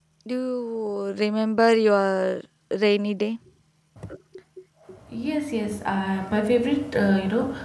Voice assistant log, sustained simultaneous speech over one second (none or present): none